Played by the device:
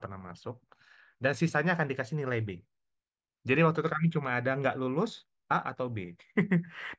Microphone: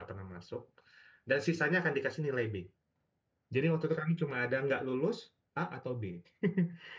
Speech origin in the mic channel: echo only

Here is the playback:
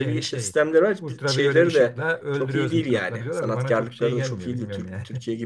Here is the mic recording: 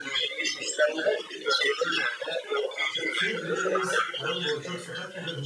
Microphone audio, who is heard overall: both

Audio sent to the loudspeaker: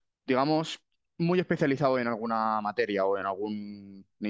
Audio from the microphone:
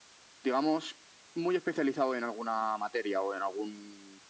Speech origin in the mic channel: echo only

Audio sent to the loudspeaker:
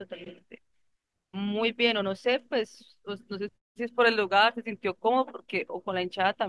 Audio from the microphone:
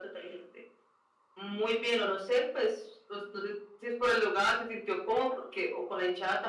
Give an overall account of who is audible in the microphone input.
echo only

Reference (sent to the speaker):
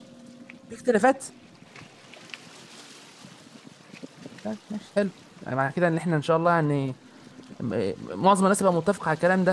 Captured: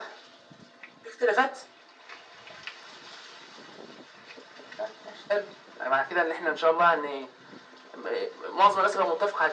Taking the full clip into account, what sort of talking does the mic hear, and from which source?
echo only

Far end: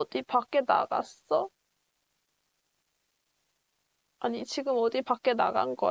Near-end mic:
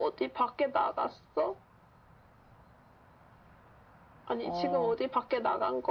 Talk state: both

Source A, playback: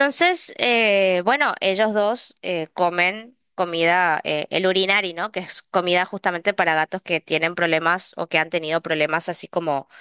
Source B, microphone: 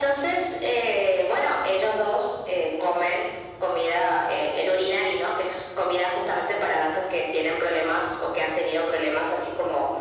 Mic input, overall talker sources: echo only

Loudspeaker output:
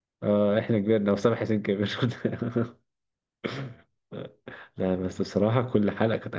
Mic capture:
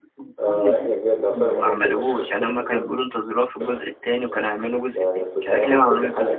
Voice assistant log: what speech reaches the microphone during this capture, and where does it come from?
both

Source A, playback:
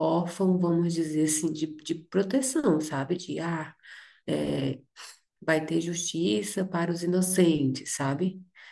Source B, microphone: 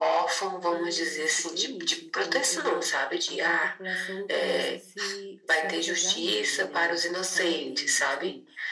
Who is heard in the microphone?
both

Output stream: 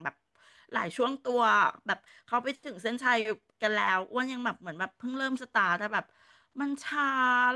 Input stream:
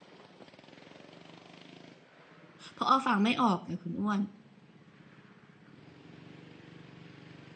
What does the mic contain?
user only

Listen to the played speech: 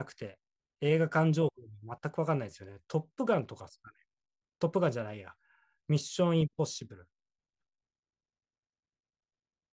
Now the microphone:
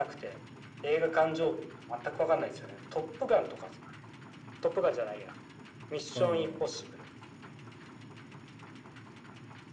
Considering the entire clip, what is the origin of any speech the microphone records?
both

